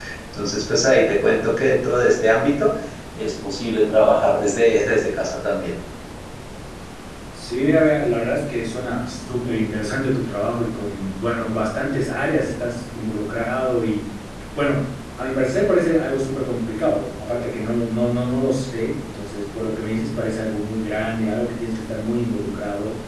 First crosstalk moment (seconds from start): none

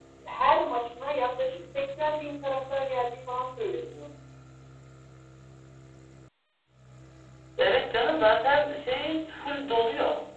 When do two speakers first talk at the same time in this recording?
none

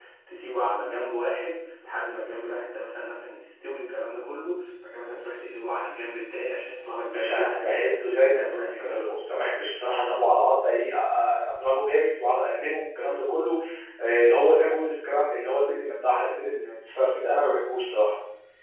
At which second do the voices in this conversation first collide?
7.1 s

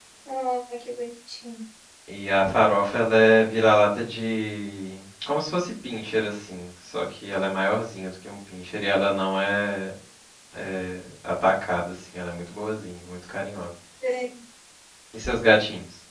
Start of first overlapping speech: none

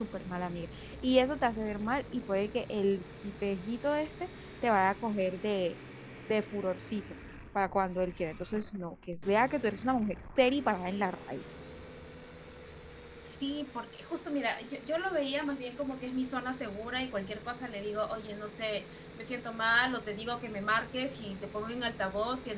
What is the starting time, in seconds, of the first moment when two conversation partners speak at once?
none

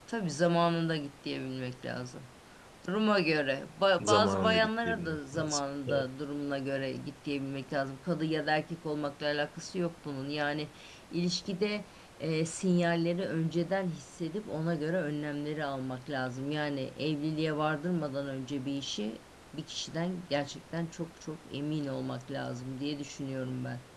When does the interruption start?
4.0 s

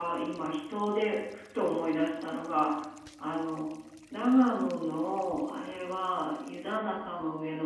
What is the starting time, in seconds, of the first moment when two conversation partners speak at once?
none

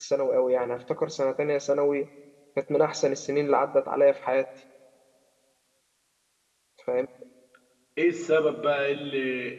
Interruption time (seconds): none

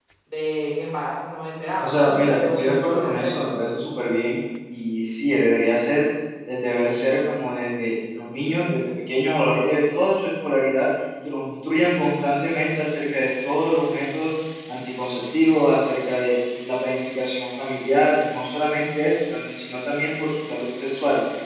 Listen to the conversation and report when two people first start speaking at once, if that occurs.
1.8 s

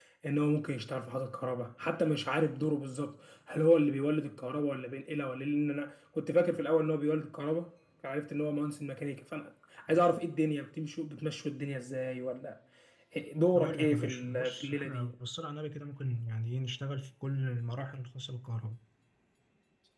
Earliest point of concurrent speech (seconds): 13.6 s

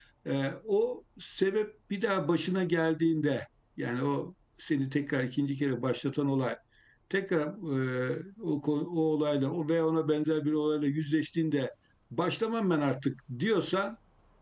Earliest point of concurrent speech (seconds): none

